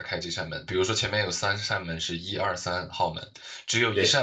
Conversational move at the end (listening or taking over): listening